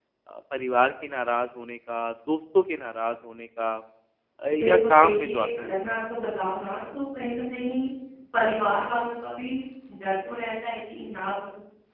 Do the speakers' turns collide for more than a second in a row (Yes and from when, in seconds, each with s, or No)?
Yes, from 4.6 s